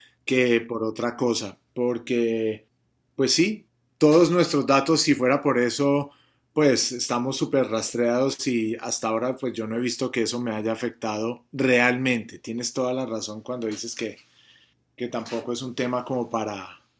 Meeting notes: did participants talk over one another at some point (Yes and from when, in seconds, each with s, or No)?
No